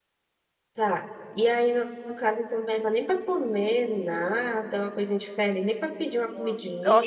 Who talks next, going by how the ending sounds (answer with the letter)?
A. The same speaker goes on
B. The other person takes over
B